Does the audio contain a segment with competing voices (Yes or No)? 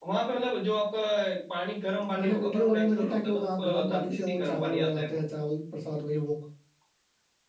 Yes